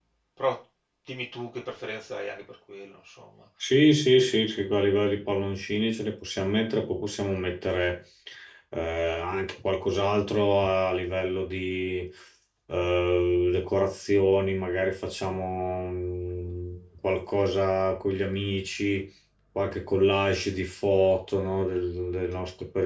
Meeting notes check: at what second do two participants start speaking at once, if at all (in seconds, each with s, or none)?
none